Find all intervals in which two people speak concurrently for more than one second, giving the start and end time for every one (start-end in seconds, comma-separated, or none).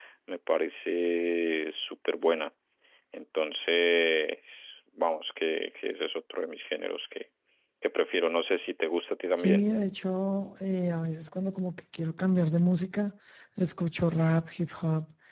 none